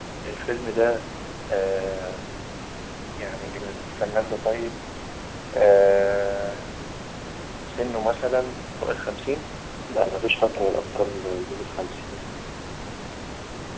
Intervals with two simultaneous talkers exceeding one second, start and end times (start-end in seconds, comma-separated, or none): none